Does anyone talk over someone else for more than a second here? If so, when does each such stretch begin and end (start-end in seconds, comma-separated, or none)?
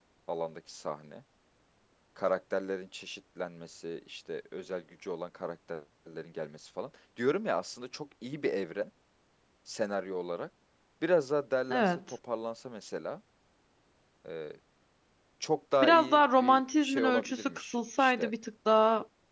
15.8-18.3